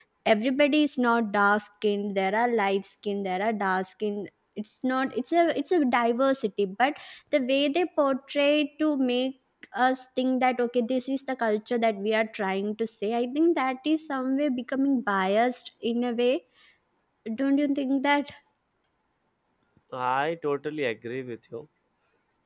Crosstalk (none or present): none